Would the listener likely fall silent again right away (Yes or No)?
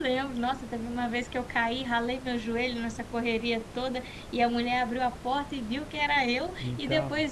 Yes